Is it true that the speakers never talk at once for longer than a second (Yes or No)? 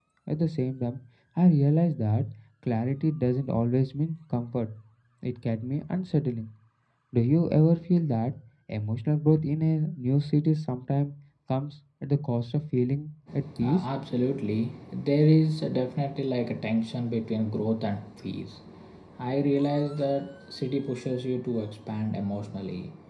Yes